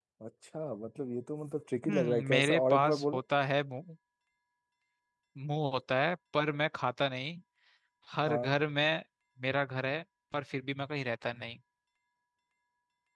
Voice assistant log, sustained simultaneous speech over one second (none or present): present